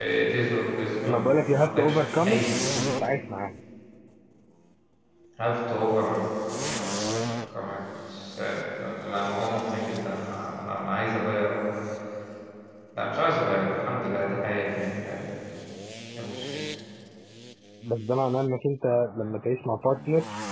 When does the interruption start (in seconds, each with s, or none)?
1.1 s